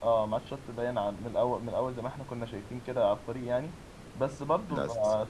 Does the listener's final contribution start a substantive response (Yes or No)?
No